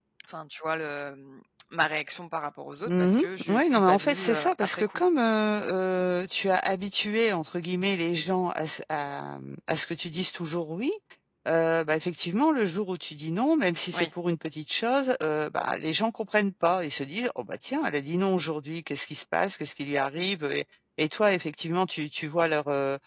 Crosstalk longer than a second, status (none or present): present